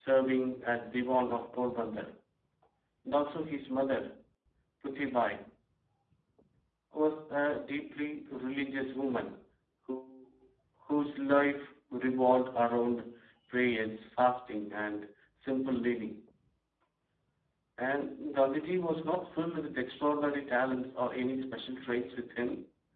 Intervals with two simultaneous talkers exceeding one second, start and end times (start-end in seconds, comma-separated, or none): none